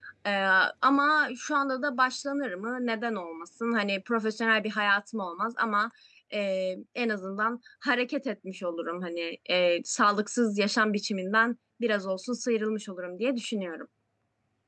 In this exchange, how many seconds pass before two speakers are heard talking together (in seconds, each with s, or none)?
none